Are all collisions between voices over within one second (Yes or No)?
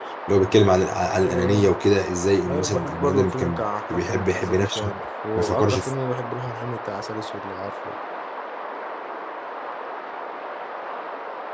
No